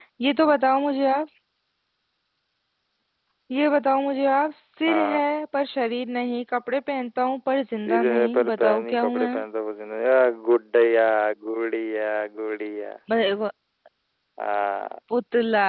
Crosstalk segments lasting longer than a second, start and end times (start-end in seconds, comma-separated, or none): 7.8-9.3